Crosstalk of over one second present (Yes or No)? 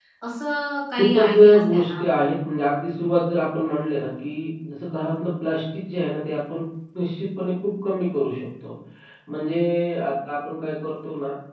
Yes